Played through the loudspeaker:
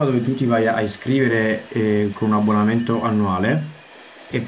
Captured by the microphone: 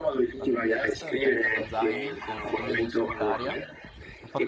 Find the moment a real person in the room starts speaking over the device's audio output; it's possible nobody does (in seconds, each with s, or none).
0.3 s